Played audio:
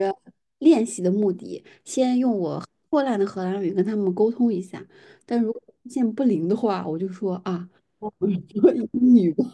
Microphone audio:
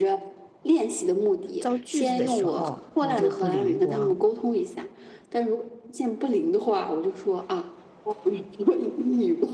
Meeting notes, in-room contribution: present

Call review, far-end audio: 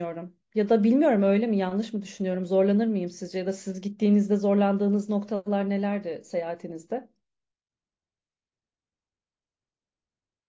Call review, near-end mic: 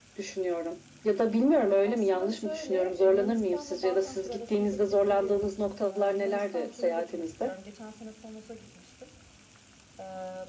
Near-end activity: present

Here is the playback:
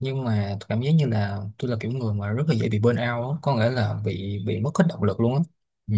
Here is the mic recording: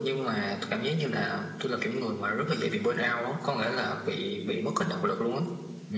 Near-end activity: none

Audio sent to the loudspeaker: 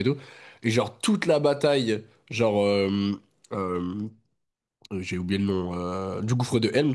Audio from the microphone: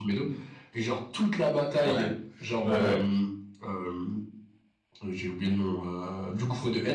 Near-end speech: present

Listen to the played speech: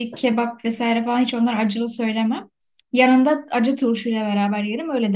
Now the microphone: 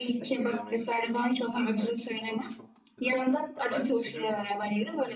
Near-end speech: present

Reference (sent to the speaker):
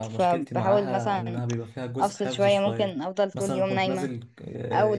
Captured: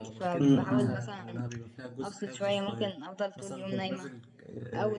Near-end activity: present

